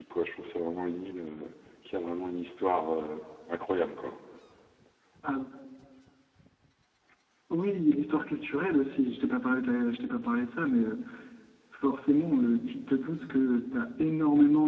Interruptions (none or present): none